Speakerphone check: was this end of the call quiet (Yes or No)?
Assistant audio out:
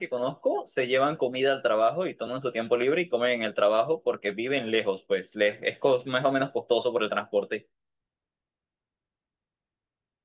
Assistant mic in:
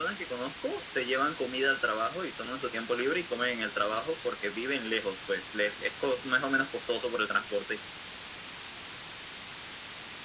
Yes